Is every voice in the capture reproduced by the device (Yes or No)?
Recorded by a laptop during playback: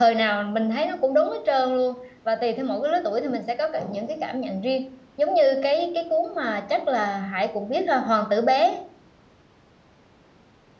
No